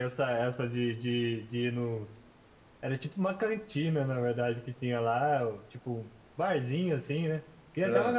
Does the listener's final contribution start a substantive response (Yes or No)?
No